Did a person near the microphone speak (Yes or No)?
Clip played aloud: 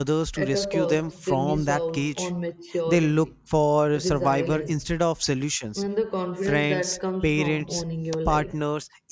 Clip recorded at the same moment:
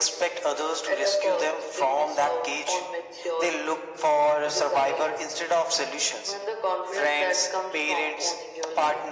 No